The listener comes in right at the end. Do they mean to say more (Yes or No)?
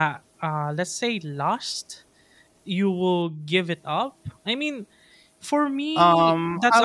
Yes